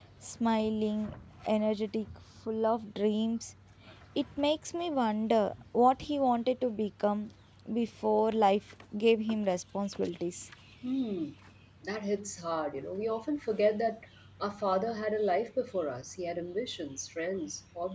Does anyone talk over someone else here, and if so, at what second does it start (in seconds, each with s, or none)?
none